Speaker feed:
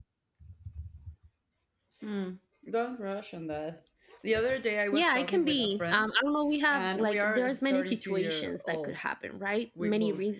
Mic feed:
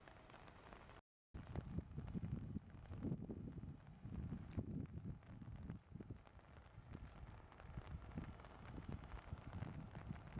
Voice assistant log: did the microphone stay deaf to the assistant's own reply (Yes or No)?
Yes